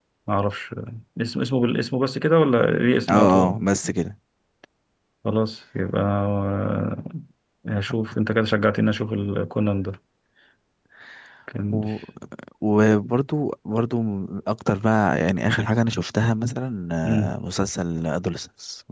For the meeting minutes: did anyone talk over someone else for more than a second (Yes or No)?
No